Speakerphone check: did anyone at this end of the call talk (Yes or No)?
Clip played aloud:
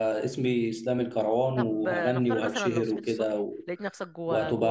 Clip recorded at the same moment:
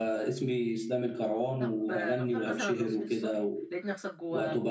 No